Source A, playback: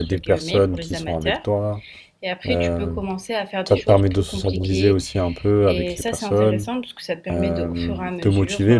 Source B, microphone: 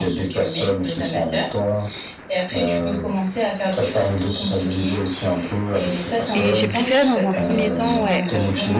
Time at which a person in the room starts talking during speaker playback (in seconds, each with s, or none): 6.3 s